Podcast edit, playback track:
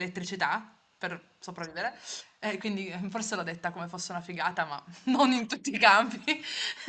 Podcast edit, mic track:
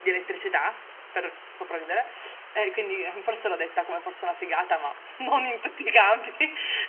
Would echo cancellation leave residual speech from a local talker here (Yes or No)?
No